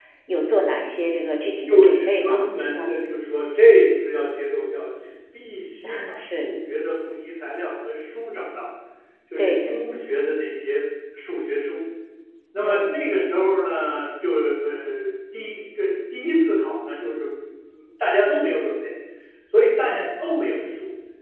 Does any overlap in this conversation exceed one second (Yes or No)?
Yes